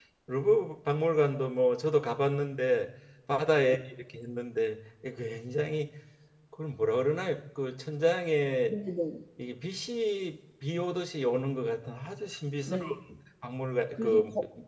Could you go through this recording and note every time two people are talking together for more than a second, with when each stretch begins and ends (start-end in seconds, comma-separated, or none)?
none